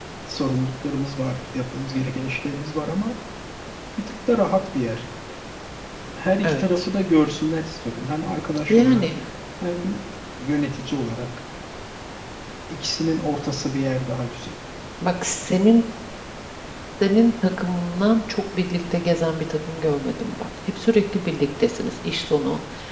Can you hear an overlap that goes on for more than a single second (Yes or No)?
No